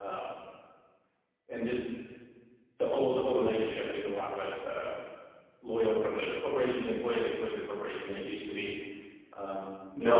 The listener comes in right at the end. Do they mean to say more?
Yes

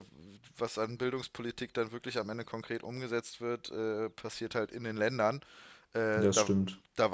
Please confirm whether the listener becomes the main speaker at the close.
No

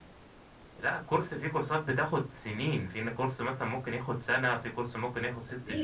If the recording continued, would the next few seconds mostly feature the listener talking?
Yes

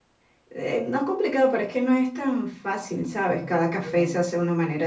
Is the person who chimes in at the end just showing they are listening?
Yes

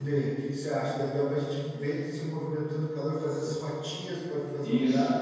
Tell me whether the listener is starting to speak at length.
Yes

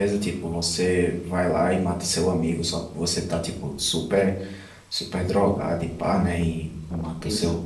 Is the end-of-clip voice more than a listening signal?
No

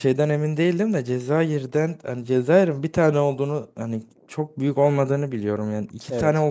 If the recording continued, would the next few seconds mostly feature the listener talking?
No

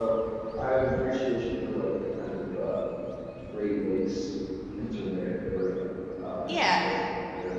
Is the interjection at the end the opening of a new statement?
No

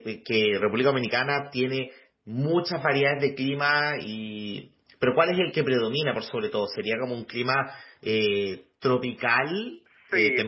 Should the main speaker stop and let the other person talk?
Yes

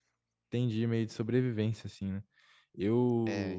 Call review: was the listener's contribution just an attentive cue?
Yes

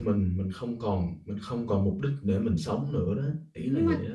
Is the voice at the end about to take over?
Yes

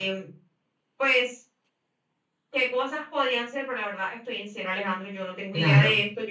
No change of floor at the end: Yes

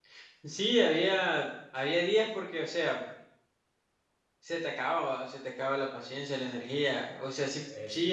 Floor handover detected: No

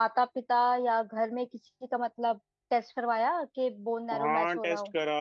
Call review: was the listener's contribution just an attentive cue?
No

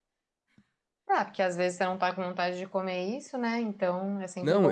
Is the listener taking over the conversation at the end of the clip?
Yes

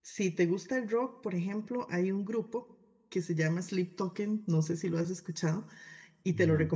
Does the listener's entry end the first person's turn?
No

